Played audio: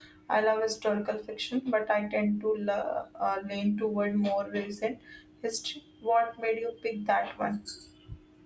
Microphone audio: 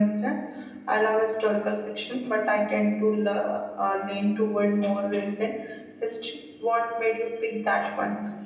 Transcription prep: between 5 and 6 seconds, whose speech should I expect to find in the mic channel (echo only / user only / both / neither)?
echo only